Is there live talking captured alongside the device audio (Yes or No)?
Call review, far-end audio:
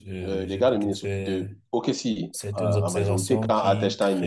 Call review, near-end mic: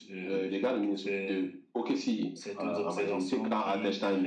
No